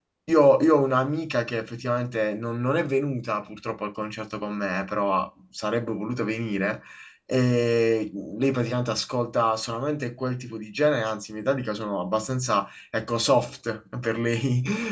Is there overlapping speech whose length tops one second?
No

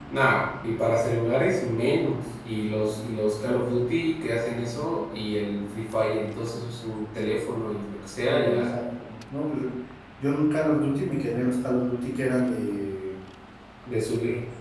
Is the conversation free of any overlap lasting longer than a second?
Yes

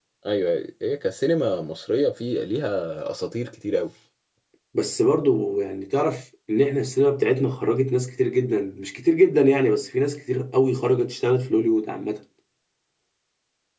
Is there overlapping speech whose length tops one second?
No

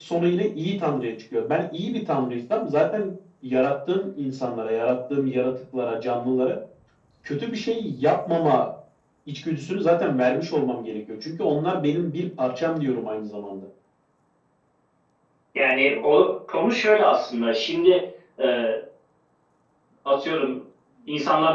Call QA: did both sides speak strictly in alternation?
Yes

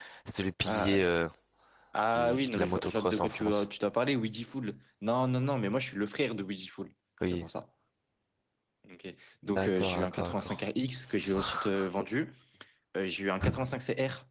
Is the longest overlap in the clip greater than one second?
Yes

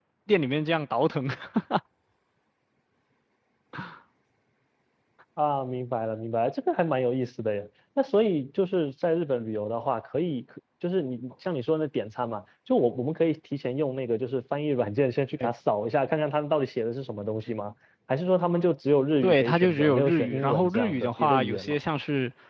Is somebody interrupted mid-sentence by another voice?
Yes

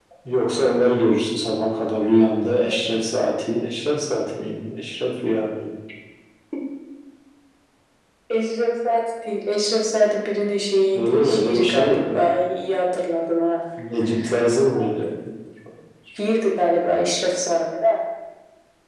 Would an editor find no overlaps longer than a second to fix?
No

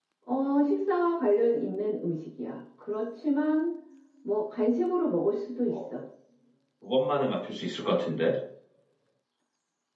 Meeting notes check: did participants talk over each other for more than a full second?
No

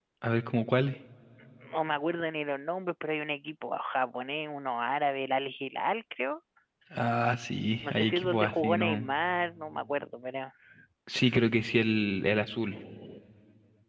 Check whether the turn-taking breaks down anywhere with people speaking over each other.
Yes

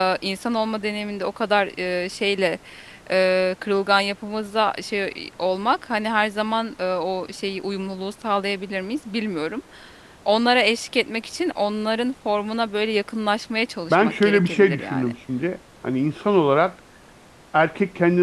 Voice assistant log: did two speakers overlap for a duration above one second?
Yes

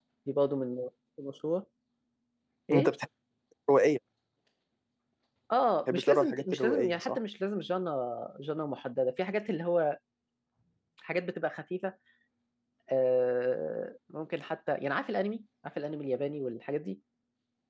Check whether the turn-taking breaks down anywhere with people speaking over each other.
Yes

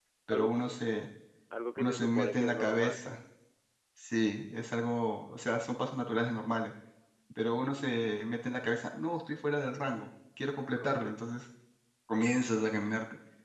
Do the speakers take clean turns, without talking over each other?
No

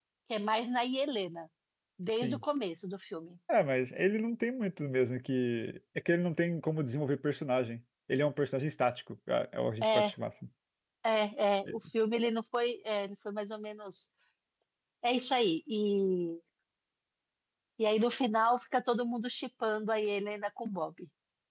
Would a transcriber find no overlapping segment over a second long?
Yes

